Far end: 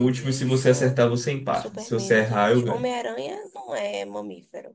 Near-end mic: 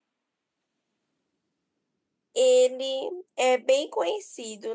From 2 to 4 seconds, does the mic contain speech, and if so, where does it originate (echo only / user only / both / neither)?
user only